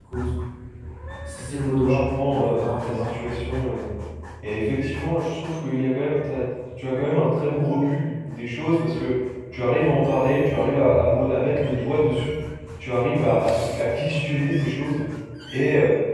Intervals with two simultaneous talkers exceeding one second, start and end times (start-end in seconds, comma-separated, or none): 1.6-3.1